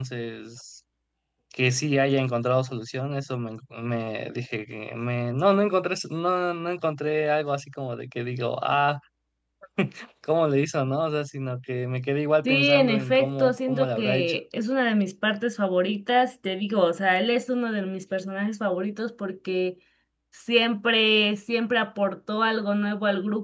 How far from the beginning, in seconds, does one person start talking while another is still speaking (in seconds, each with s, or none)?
12.4 s